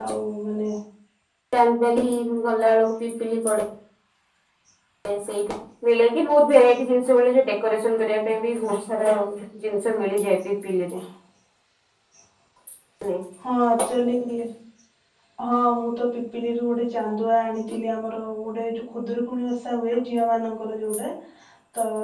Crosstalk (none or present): none